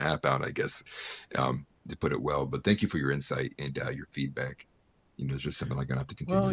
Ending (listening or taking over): taking over